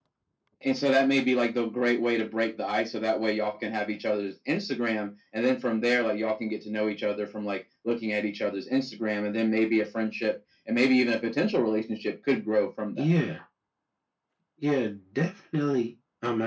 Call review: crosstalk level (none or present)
none